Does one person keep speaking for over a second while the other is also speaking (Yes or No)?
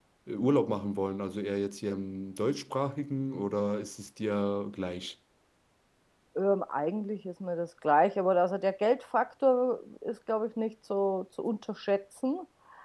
No